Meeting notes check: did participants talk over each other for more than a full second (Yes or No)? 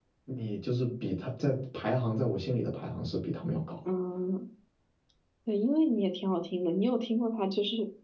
No